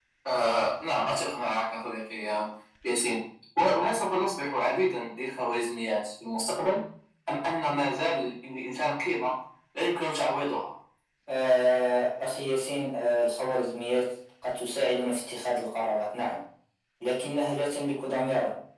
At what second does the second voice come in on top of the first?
none

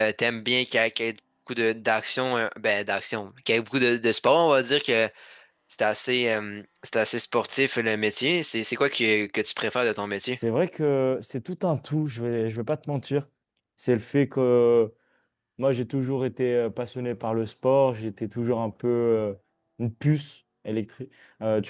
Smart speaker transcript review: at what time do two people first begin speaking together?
none

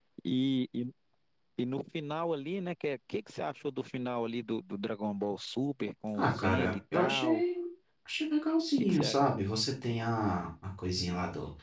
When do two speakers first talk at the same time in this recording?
6.2 s

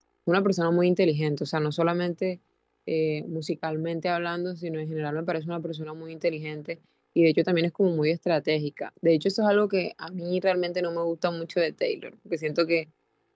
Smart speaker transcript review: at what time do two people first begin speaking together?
none

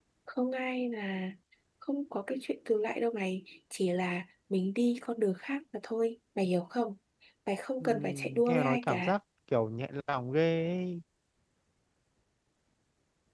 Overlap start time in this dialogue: 7.8 s

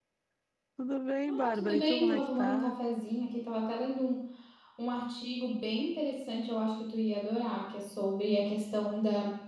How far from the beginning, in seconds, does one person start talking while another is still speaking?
1.3 s

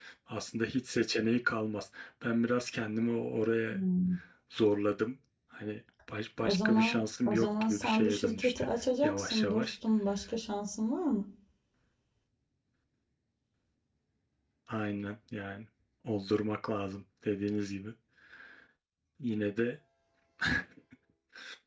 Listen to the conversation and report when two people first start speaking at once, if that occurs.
6.4 s

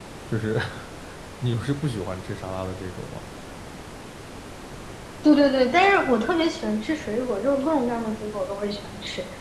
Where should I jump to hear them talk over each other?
none

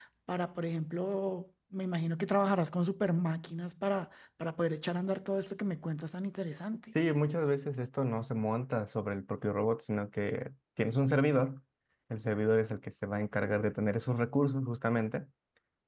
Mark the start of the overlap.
none

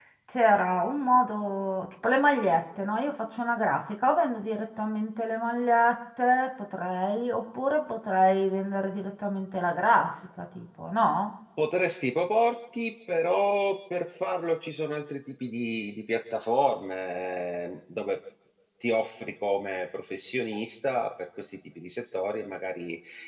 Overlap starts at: none

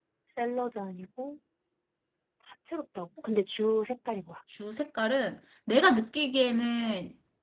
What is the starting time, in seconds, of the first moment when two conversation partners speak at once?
none

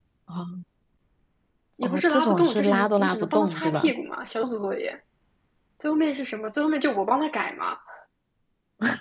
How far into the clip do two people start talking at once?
1.8 s

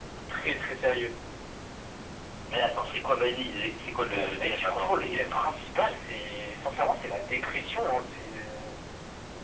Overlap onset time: 4.1 s

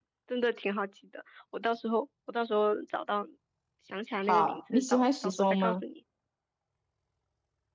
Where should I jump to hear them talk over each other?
4.3 s

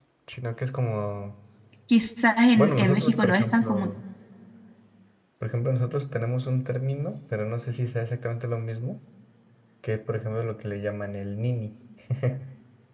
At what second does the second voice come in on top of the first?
2.5 s

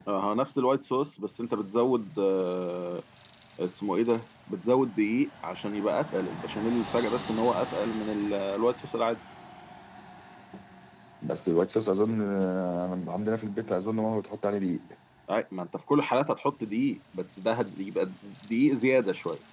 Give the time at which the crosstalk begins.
none

